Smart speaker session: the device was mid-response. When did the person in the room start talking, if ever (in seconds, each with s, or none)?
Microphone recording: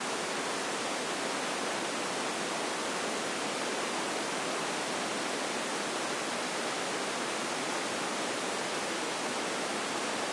none